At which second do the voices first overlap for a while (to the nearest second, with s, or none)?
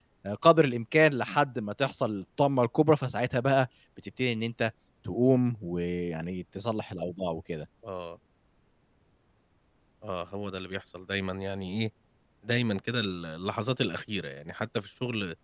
none